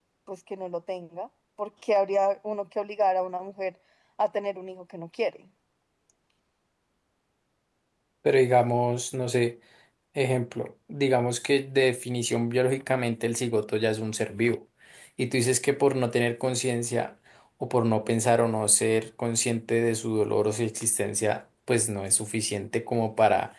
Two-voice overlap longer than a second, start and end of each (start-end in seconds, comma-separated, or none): none